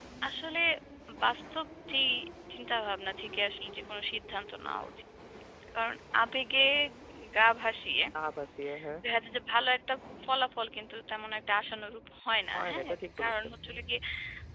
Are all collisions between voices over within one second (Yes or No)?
No